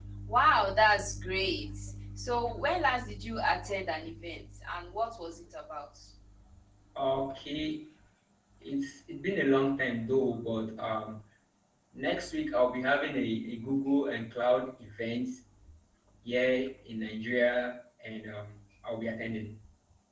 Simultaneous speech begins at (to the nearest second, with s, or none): none